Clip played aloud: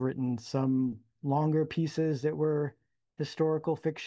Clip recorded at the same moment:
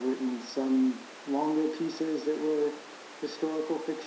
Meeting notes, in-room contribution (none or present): none